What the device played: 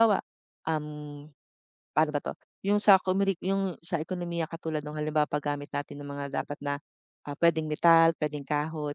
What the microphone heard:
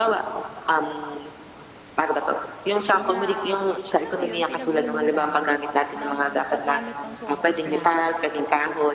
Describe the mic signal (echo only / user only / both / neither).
both